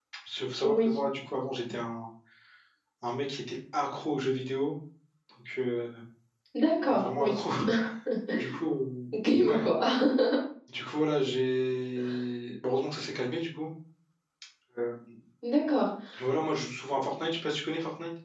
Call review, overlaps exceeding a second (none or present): none